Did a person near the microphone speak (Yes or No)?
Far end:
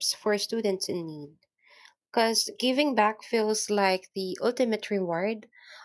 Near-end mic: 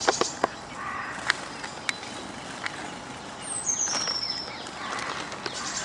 No